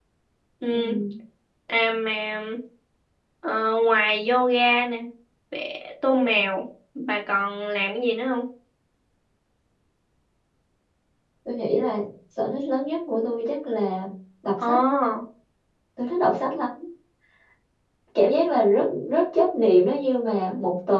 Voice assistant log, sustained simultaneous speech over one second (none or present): none